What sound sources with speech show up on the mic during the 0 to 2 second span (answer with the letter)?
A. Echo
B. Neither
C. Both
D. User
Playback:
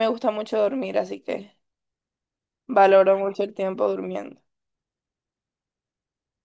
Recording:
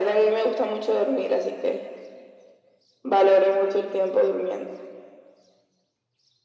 A